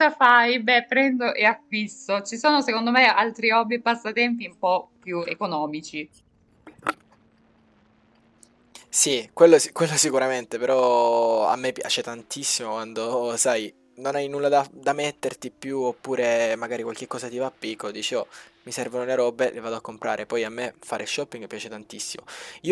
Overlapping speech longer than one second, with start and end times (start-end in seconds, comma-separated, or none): none